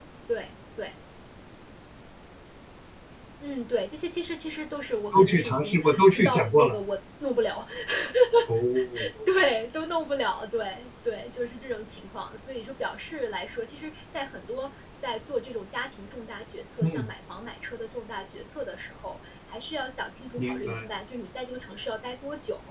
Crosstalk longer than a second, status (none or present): present